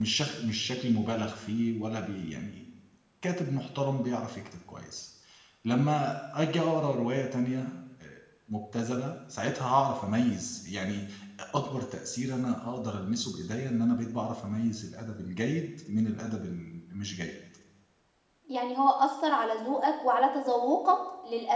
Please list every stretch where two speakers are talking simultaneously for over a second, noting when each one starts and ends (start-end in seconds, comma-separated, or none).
none